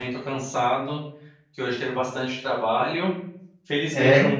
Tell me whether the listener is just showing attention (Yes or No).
Yes